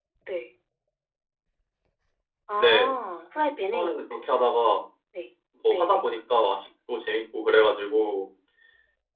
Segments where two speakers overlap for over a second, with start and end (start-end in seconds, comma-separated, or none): none